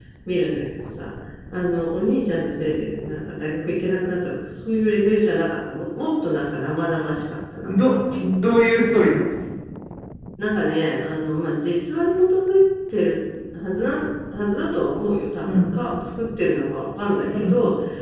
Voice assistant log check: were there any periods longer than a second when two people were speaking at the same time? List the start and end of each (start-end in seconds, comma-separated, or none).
none